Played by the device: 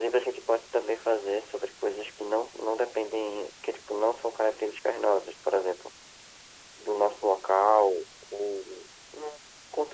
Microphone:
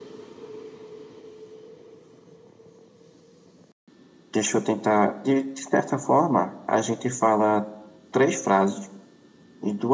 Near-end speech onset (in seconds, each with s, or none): 4.3 s